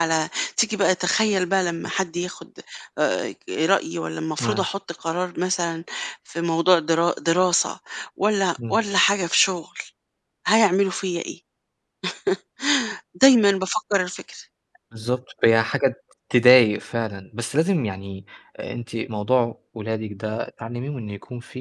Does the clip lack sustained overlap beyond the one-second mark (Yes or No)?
Yes